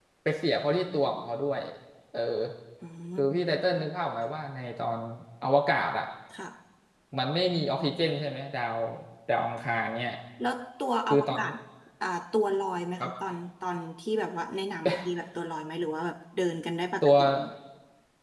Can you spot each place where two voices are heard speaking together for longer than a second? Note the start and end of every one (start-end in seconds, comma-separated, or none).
none